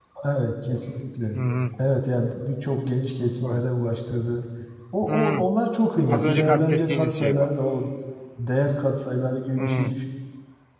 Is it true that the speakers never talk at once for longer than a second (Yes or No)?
No